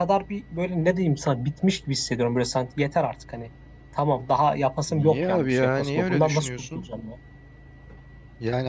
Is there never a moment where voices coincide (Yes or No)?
No